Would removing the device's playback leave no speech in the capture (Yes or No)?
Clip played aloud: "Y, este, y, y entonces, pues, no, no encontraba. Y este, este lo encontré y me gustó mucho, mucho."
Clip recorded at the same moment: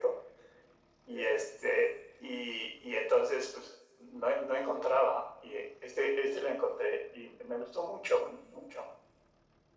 Yes